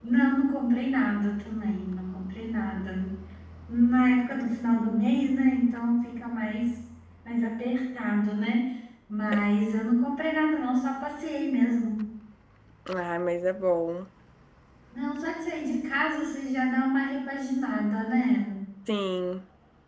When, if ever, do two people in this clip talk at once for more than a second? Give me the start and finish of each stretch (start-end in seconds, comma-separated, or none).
none